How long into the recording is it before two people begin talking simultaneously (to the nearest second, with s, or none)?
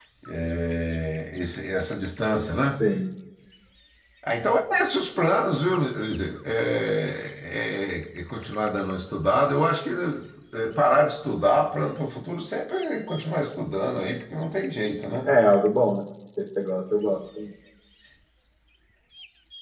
none